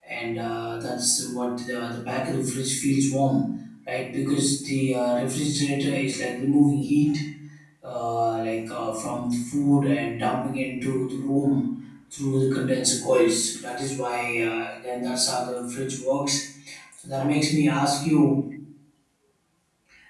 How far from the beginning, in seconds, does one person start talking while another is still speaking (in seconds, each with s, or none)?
none